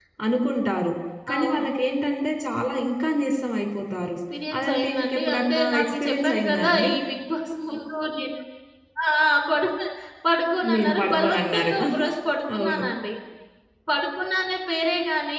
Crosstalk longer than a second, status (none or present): present